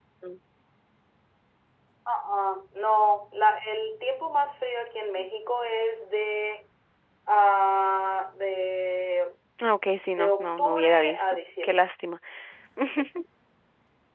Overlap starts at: 10.1 s

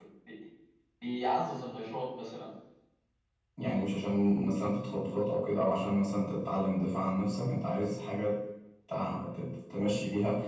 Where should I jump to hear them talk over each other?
none

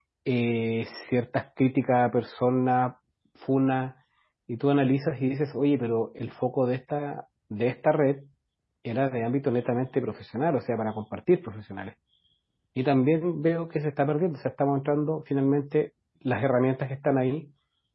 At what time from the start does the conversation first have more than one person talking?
none

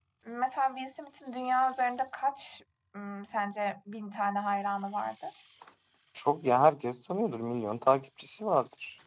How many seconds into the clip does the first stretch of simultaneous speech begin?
none

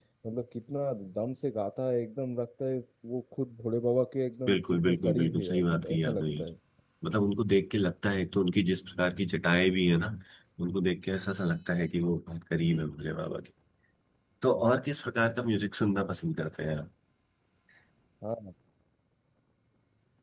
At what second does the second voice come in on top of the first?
4.5 s

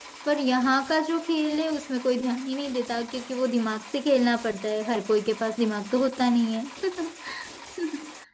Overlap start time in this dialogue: none

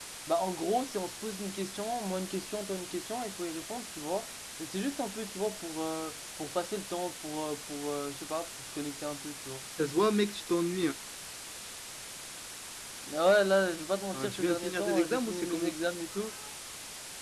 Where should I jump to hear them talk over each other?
14.1 s

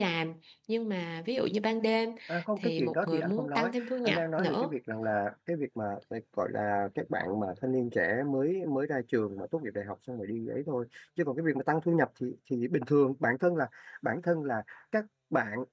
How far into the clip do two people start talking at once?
2.6 s

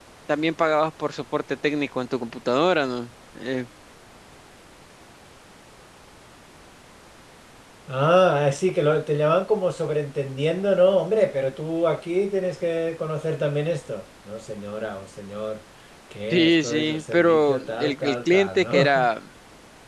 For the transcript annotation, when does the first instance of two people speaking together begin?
16.3 s

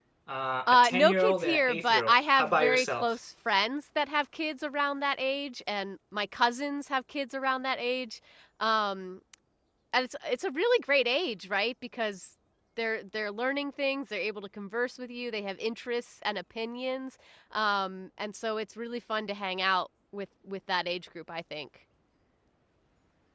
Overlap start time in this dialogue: 0.7 s

